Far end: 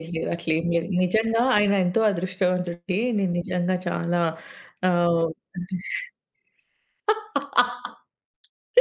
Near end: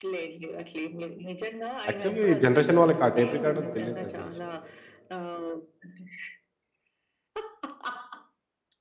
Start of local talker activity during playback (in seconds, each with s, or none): 1.9 s